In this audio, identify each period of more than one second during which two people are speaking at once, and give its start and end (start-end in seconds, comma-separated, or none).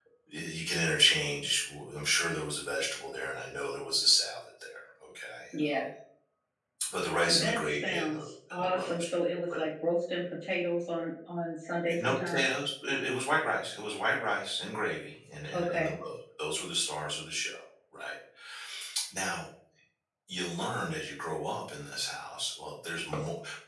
7.3-8.9